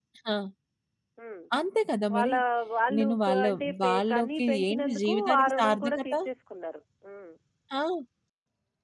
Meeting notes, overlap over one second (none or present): present